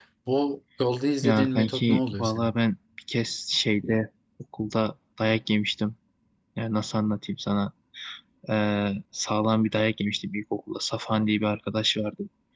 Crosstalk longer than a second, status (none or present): present